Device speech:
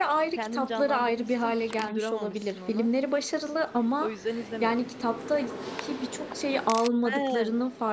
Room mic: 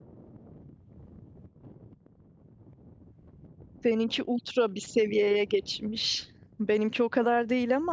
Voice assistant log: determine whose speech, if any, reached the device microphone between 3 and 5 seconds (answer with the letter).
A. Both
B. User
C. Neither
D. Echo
B